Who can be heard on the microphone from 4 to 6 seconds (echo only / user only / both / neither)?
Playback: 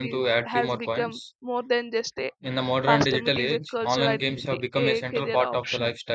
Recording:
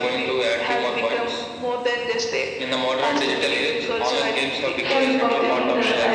both